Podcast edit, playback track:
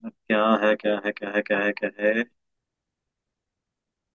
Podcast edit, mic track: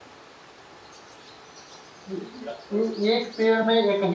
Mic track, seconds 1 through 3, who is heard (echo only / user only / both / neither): user only